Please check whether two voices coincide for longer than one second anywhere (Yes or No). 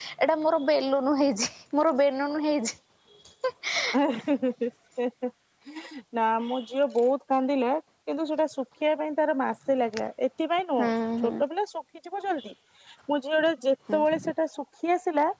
No